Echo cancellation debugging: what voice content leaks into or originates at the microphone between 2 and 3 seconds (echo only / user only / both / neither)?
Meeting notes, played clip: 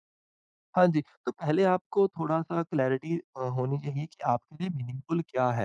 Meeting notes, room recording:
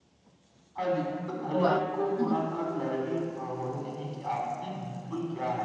both